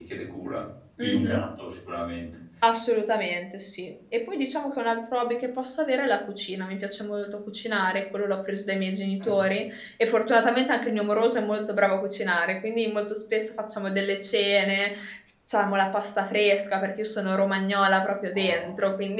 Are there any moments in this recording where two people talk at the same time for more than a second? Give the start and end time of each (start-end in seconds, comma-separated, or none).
none